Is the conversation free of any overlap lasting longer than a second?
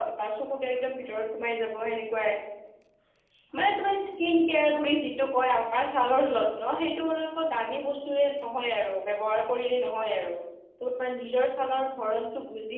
Yes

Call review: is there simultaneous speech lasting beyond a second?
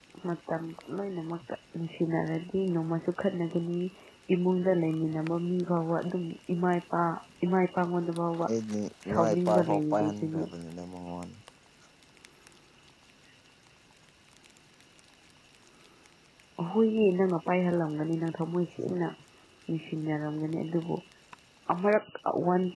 Yes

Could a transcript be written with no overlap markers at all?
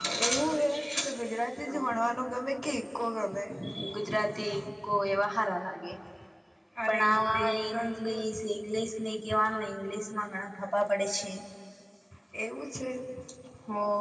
No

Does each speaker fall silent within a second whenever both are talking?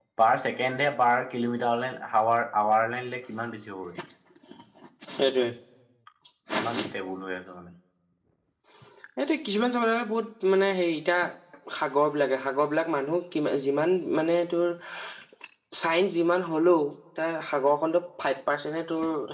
Yes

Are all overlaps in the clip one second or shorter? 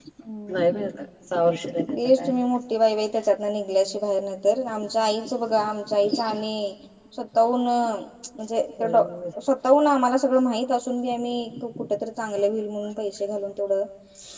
Yes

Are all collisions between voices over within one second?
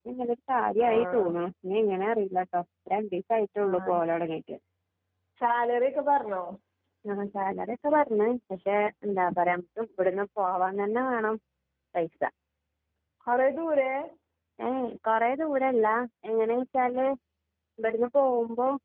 Yes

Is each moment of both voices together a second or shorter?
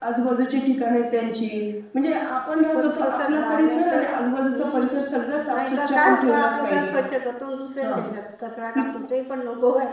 No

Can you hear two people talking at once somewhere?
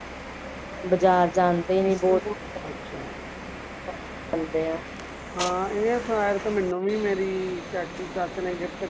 No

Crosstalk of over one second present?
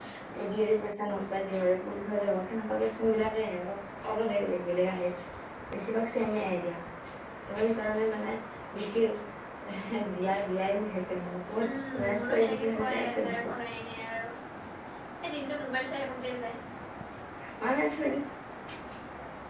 Yes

